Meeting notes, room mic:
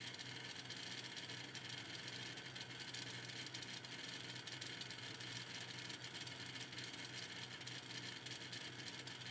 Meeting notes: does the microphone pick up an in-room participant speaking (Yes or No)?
No